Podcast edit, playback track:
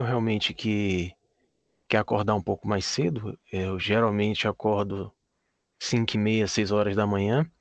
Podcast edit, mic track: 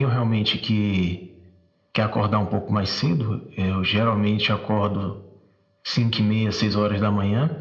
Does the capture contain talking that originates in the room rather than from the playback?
No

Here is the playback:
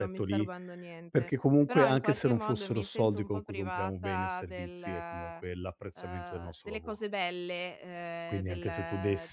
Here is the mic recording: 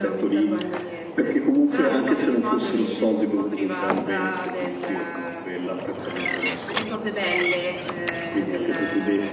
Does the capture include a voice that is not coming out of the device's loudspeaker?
No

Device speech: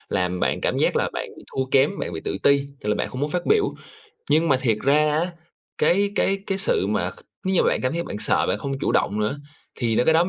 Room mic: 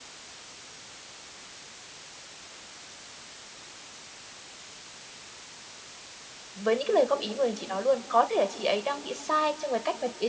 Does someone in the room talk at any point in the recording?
Yes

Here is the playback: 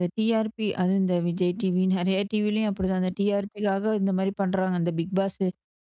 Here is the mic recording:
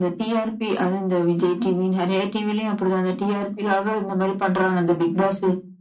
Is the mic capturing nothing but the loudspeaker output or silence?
Yes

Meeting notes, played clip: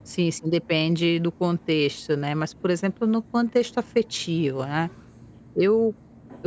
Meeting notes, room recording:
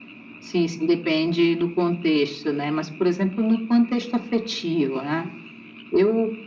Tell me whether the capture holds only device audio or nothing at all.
Yes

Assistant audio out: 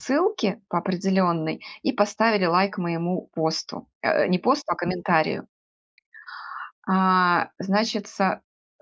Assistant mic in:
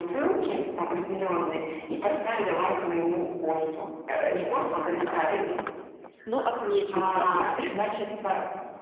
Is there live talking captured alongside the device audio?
Yes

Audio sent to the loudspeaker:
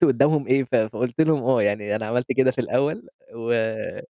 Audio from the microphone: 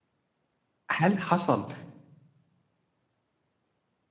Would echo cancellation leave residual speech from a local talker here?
Yes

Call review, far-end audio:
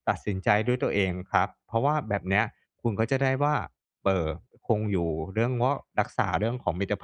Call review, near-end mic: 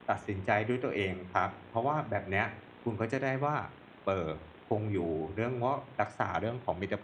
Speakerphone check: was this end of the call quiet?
Yes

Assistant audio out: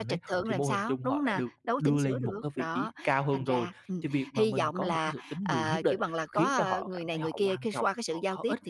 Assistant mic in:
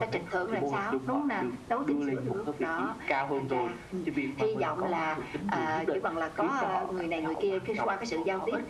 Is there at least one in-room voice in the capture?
No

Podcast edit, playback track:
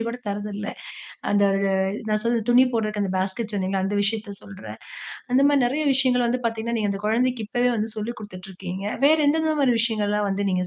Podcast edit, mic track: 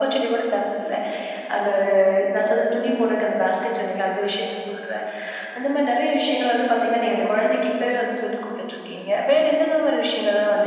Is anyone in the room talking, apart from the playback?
No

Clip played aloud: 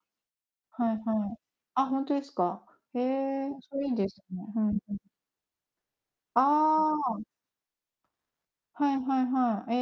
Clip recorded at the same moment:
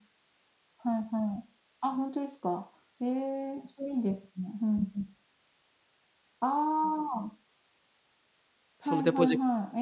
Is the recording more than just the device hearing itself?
Yes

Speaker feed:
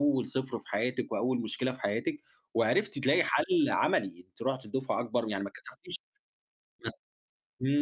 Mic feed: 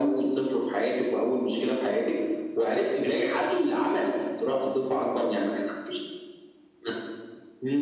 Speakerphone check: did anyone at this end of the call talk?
No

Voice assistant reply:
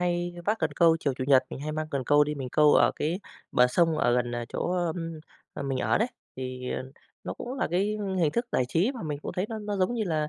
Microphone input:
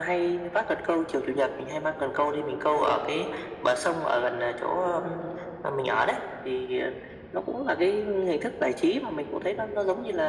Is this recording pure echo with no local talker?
Yes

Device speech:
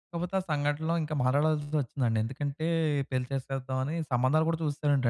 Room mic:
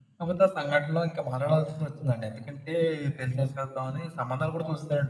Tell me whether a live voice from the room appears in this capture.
No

